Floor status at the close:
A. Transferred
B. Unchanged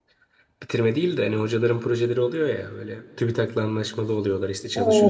A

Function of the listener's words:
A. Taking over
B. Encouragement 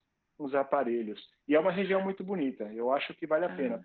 B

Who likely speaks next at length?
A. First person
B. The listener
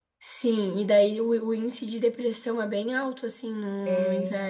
A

